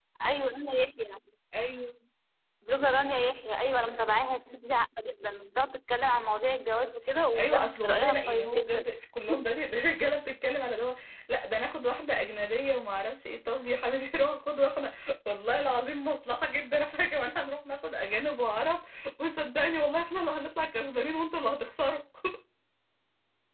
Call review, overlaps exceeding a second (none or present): present